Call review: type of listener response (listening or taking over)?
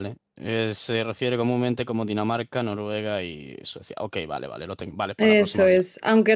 taking over